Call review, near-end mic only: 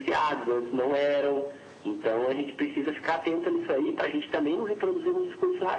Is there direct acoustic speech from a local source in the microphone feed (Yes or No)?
No